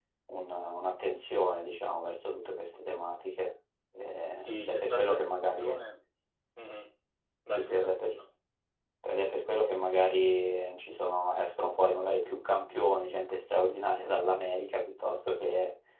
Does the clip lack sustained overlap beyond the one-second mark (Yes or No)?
No